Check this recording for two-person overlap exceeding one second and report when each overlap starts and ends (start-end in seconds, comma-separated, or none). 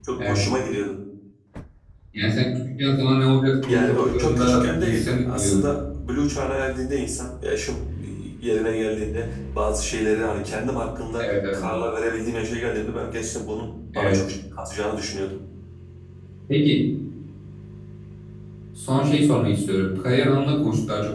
3.7-5.7